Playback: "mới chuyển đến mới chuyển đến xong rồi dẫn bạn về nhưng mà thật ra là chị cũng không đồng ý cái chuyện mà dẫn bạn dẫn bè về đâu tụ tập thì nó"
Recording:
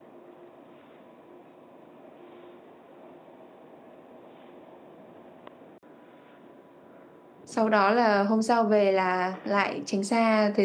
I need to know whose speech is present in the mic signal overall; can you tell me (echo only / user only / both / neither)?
user only